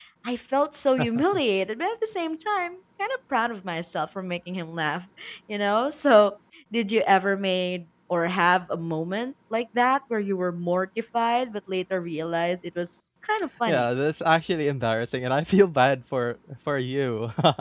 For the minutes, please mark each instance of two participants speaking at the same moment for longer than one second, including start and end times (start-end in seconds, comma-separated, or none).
none